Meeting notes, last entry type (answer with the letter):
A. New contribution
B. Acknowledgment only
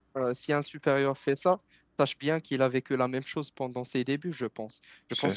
B